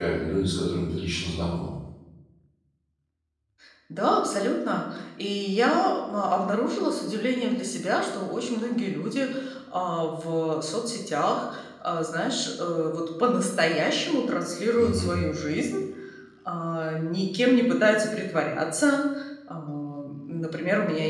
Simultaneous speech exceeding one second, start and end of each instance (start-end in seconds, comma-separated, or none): none